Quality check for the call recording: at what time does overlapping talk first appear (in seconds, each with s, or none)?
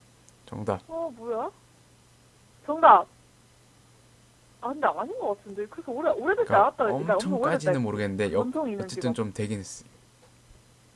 6.5 s